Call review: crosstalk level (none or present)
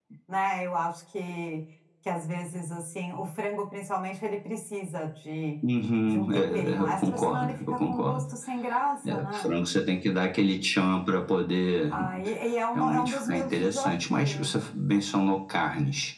present